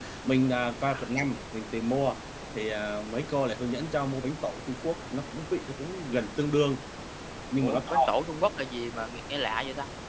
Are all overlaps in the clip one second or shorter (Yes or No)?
Yes